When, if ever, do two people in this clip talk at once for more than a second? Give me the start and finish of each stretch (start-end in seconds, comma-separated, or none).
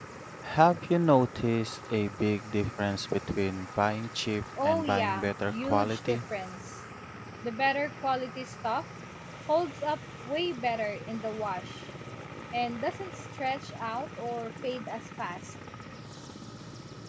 4.6-6.2